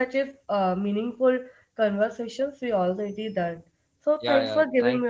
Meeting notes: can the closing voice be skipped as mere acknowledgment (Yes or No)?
No